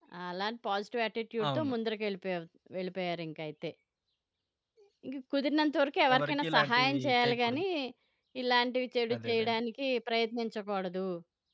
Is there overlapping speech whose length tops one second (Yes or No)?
Yes